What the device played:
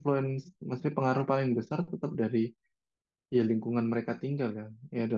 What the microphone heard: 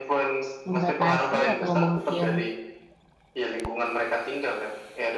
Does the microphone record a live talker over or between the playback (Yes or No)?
Yes